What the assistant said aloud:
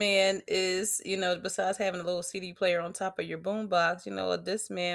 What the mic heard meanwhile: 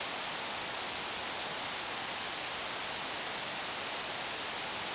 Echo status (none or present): none